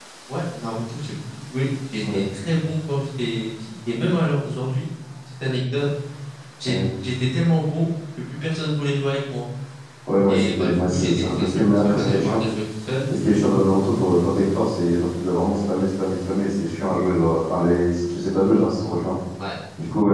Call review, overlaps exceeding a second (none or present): present